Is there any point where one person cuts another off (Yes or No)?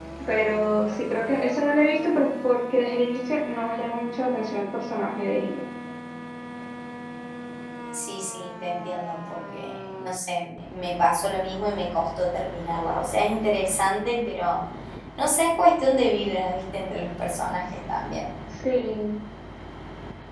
No